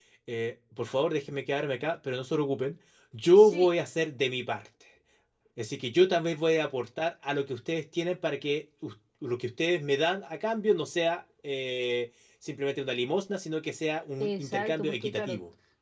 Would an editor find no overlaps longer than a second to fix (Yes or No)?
No